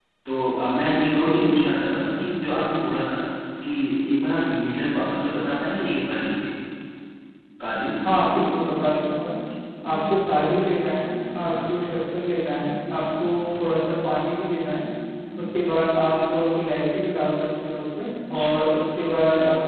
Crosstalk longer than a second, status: none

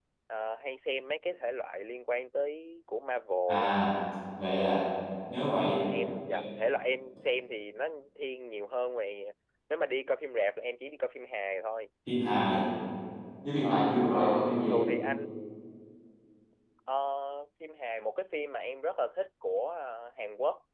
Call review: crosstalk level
present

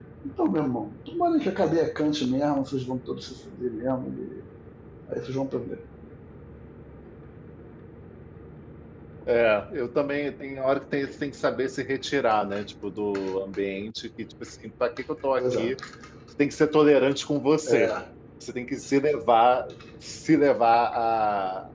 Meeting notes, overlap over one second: none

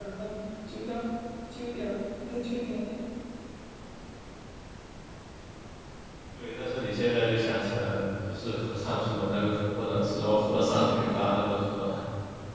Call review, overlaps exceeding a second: present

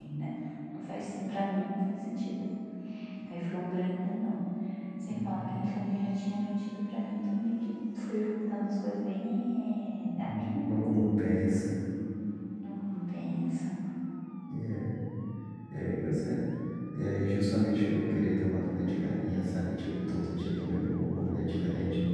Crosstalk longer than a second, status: none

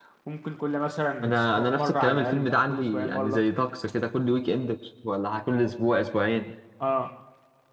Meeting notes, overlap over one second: present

